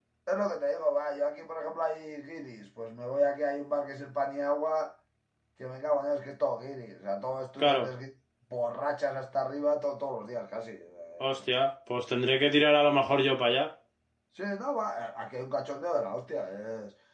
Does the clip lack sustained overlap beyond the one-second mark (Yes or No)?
Yes